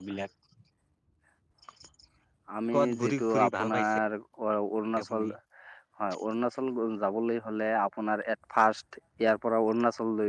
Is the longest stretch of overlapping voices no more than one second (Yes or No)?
No